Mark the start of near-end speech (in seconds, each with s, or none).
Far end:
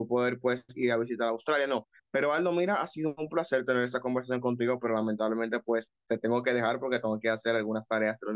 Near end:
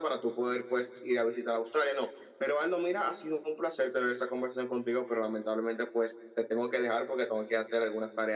none